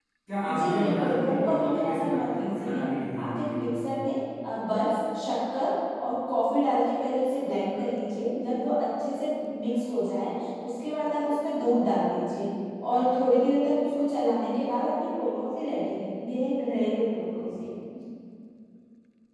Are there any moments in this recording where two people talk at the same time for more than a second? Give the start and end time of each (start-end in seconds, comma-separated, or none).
0.6-2.8